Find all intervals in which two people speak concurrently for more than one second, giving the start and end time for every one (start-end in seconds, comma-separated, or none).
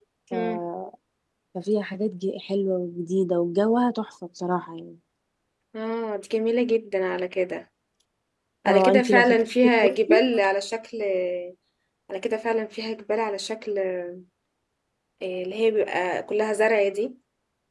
8.7-10.2